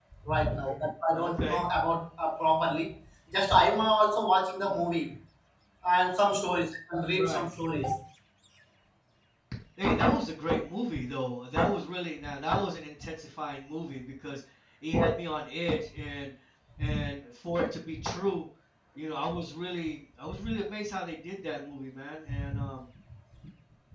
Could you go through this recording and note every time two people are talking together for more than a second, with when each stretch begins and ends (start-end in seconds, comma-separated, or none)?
none